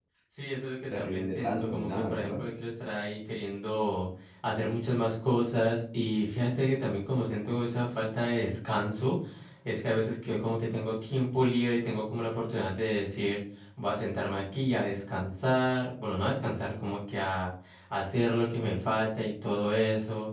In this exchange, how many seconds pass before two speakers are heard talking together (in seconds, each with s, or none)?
0.8 s